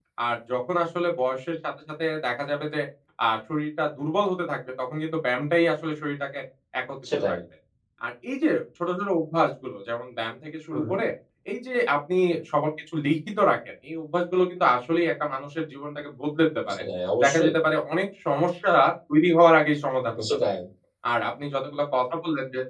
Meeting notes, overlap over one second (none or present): none